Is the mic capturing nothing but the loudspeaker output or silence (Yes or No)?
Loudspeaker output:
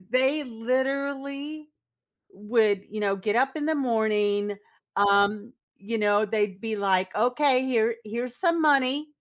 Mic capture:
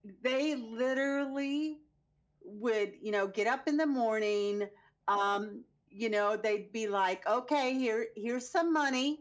Yes